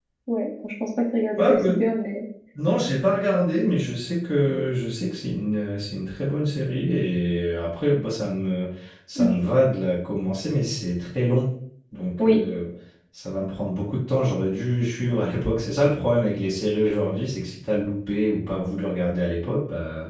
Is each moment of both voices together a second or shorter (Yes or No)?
Yes